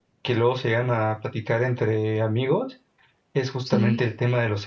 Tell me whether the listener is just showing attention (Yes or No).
Yes